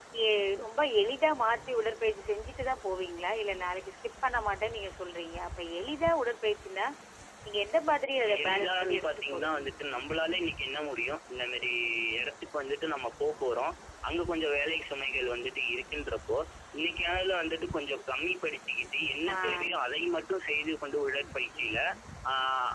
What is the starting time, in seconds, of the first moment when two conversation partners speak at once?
8 s

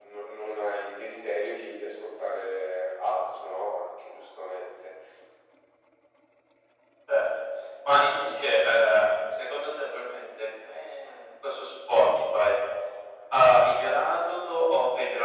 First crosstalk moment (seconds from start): none

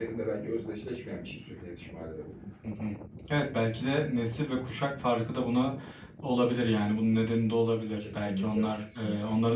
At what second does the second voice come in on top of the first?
8 s

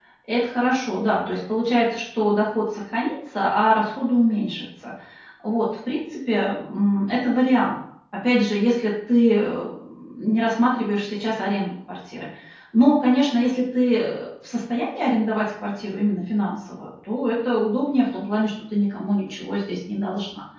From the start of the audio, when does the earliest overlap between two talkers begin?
none

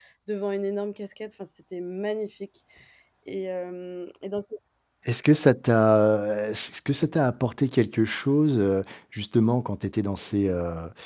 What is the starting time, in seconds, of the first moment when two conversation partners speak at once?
none

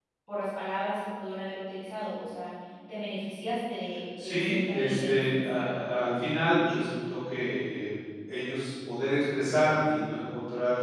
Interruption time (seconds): 4 s

